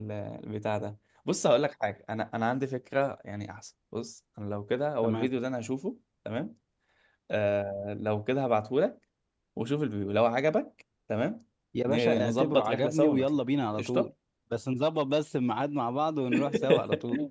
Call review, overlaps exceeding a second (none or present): present